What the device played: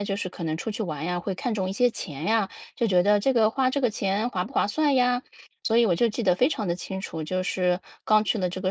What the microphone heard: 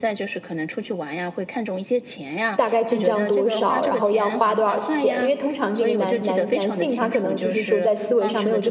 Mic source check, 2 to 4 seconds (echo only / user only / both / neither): both